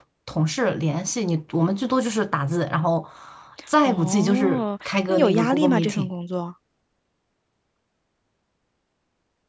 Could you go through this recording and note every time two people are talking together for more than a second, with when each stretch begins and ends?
3.9-6.1

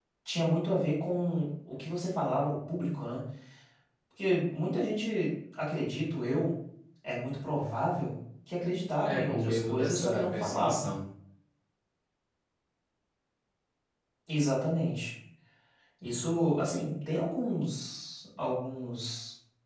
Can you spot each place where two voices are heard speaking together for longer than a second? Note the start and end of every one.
9.0-10.9

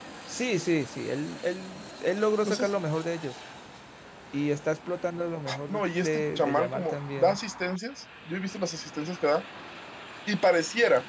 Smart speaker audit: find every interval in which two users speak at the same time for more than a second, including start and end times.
5.7-7.4

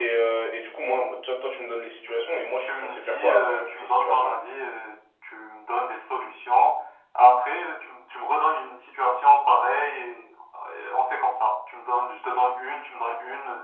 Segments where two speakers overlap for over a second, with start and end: 2.6-4.4

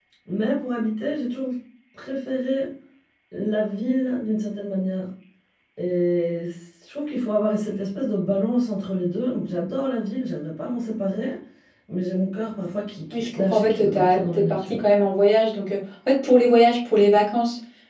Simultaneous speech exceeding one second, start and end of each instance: 13.1-14.8

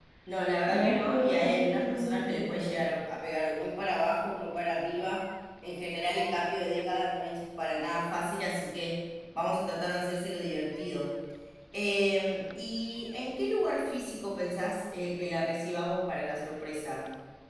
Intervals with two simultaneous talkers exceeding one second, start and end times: 0.7-2.6

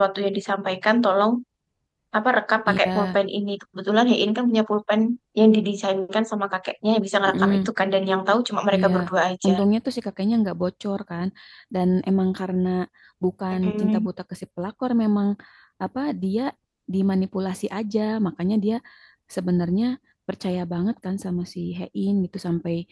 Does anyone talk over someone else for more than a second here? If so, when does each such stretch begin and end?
none

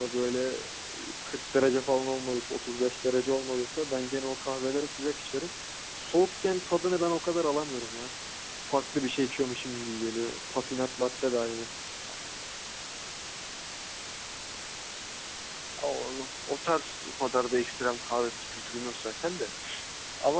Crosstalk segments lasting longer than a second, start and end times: none

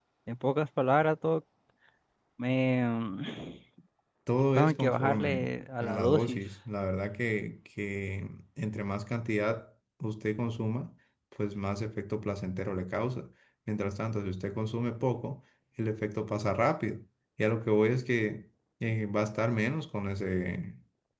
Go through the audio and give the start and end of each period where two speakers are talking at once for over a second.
4.5-6.4

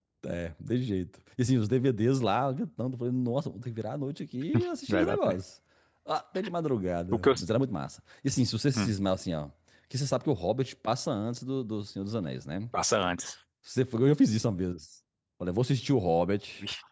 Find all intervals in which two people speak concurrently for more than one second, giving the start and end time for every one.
none

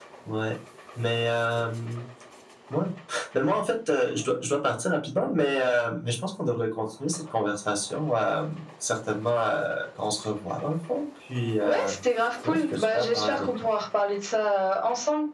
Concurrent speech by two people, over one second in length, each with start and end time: 12.4-13.7

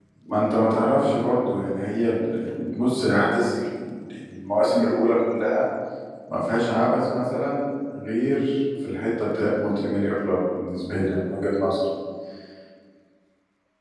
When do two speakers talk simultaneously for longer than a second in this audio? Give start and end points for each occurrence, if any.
none

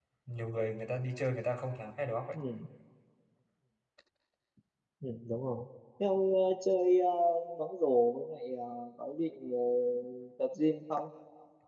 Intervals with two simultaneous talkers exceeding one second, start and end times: none

